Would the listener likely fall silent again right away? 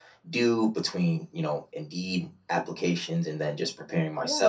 No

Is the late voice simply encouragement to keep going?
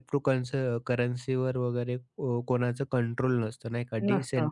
No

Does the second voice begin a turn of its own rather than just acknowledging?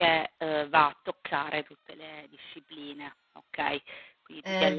Yes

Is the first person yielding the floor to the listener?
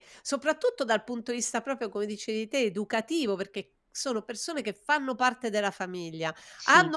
No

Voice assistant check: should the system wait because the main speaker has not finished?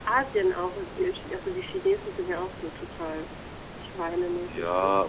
No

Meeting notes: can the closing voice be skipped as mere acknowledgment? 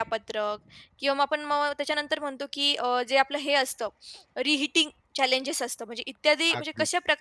Yes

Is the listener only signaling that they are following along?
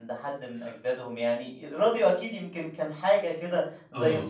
No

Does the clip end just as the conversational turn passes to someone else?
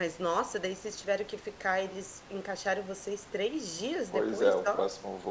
Yes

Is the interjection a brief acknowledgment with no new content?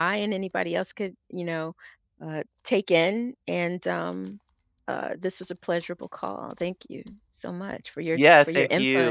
No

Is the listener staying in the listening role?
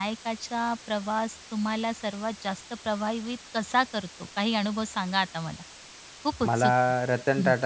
No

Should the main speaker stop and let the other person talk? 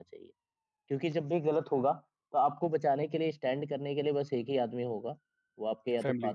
No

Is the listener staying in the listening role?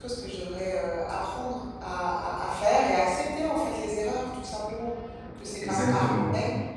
Yes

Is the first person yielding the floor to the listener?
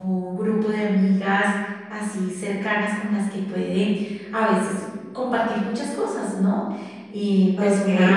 No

